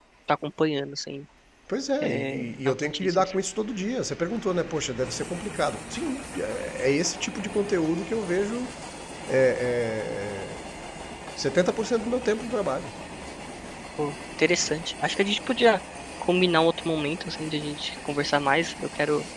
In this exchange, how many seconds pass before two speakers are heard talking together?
2.0 s

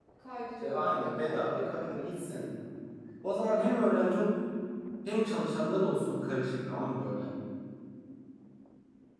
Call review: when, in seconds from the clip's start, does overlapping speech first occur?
0.6 s

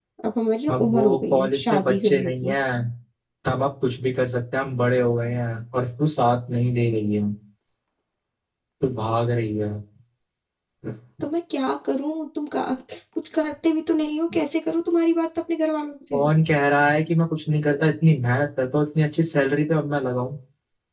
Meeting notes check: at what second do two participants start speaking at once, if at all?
0.7 s

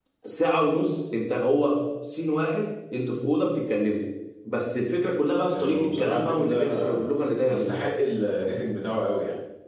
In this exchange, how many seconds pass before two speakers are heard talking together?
5.5 s

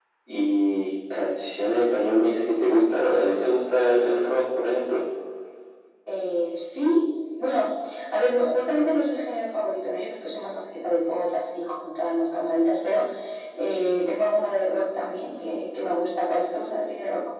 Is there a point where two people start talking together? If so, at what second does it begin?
none

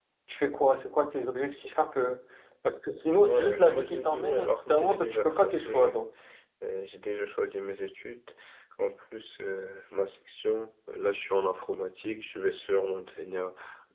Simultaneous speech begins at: 3.2 s

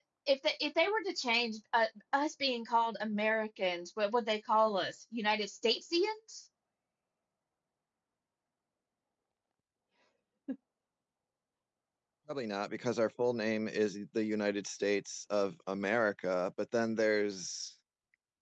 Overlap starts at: none

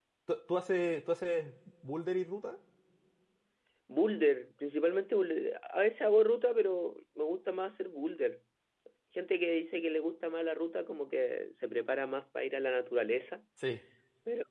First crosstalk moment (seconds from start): none

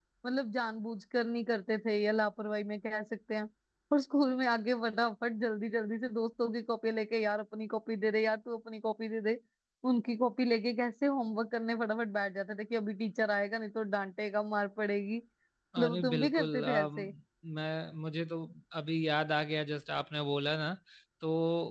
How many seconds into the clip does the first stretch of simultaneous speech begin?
15.8 s

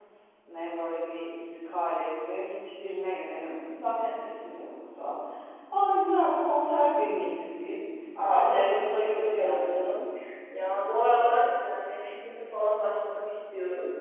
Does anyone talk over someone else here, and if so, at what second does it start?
8.3 s

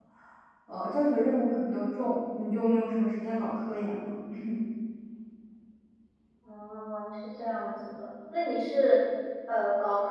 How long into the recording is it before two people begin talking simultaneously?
none

